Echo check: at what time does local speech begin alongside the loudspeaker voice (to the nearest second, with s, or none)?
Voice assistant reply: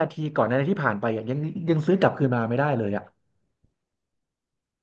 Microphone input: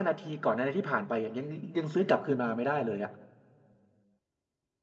none